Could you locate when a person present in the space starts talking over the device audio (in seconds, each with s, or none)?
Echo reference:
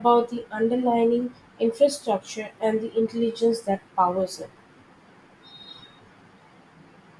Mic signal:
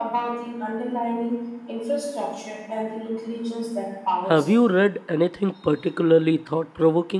4.2 s